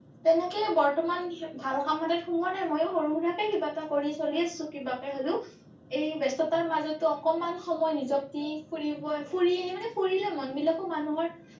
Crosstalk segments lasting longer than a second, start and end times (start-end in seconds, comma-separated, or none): none